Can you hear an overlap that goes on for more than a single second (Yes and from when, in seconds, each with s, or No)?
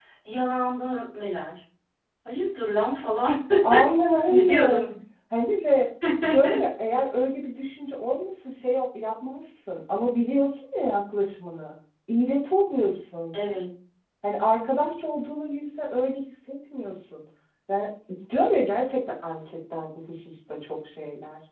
No